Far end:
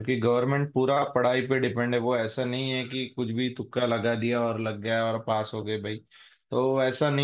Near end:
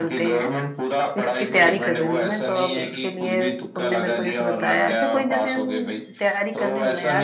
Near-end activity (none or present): present